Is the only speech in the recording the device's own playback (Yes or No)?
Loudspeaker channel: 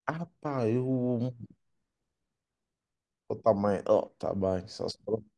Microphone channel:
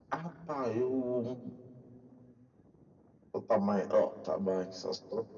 Yes